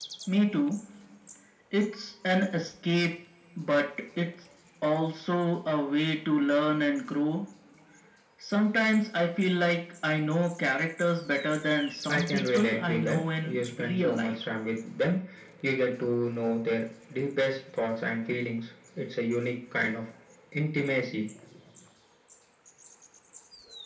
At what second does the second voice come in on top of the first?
12 s

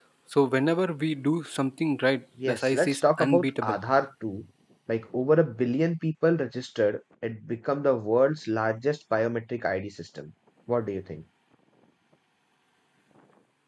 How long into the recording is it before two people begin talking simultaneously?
2 s

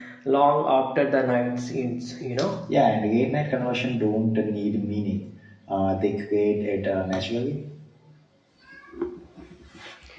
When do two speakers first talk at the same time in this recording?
none

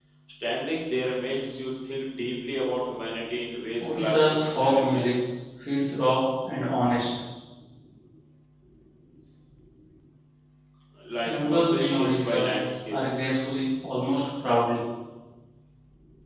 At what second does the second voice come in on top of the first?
4 s

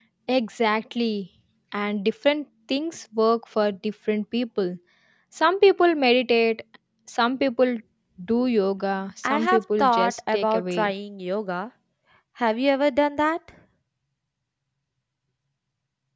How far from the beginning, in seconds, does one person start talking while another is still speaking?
9 s

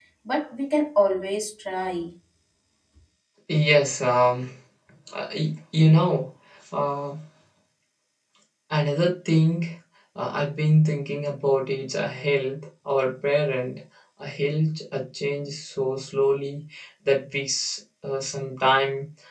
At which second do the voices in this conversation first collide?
none

